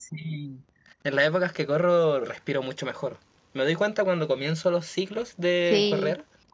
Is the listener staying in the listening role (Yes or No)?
Yes